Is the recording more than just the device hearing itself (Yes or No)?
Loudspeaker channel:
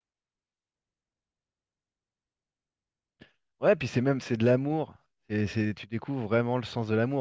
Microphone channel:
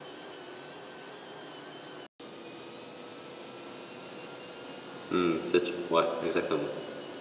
Yes